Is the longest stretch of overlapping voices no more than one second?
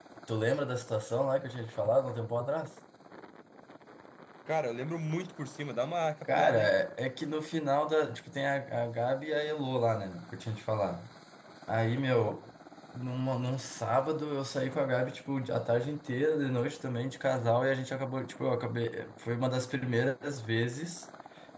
Yes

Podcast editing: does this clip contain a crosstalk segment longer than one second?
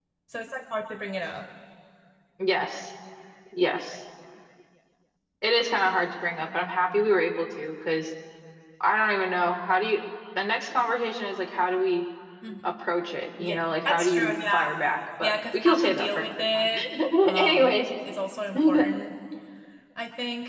Yes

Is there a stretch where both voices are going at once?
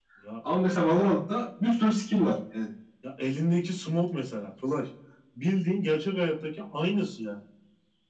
No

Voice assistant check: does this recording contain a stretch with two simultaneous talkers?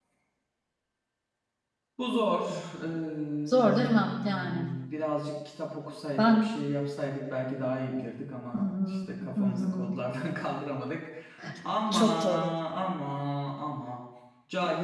Yes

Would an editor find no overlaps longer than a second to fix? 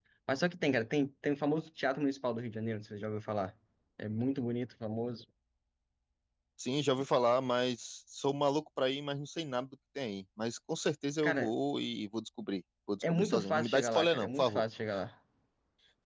No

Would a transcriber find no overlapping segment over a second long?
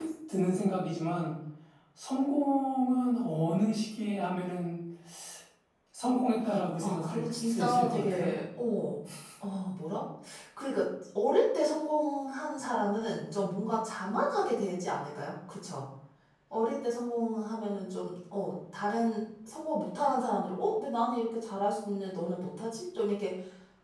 No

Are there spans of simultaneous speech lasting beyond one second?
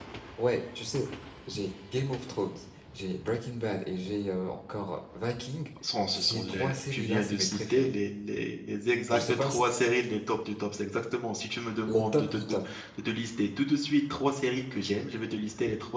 Yes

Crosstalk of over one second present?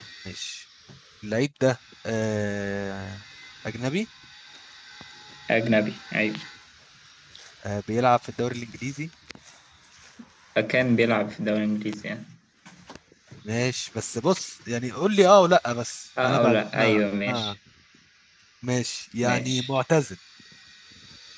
Yes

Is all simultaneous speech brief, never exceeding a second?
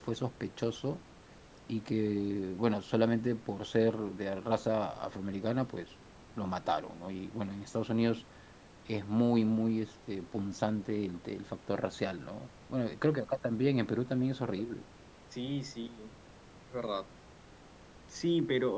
Yes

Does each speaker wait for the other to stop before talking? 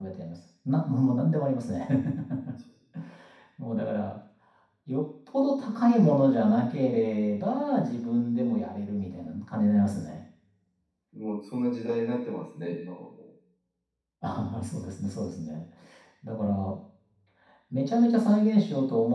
Yes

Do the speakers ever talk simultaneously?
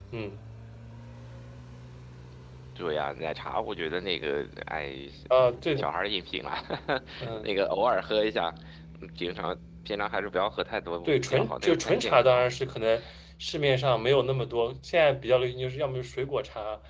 Yes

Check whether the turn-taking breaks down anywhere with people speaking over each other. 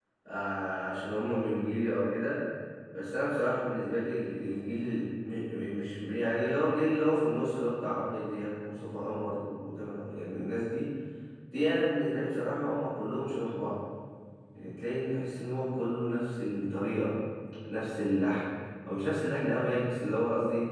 No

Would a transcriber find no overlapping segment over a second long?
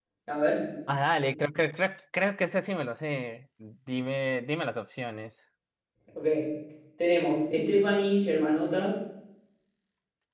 Yes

